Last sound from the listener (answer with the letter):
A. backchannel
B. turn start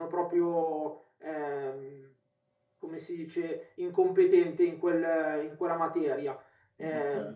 B